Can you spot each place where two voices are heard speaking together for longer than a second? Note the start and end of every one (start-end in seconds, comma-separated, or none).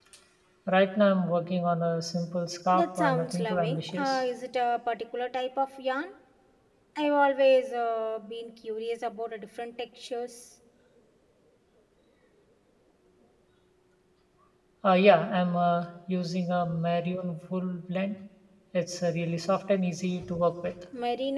2.7-4.2